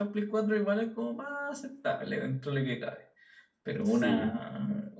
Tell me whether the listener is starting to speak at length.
No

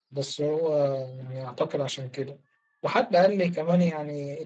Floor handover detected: No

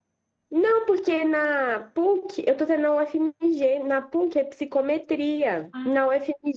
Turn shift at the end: No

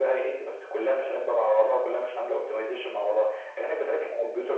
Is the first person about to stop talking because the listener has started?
No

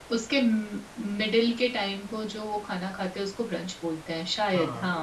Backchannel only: No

